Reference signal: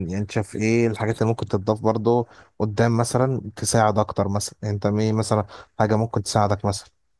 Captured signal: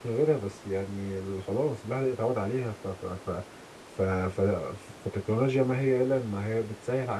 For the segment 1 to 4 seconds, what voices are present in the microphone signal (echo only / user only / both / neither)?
user only